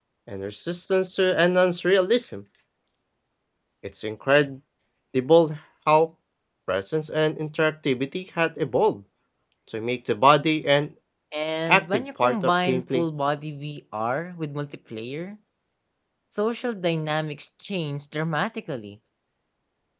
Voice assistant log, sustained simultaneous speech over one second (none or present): present